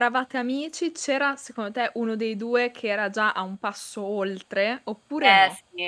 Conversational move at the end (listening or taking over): taking over